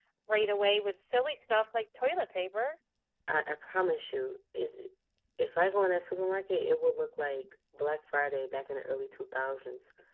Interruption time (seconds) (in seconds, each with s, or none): none